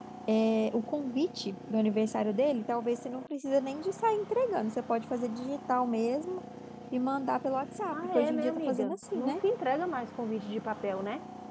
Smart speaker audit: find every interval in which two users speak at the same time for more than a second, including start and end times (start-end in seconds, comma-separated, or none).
7.9-9.3